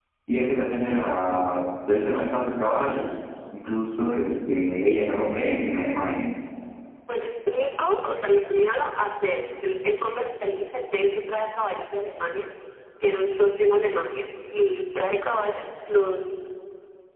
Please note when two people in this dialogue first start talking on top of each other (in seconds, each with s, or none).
none